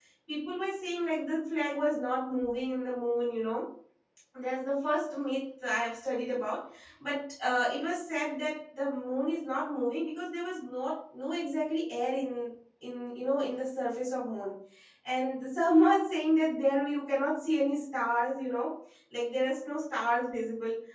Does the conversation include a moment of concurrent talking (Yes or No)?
No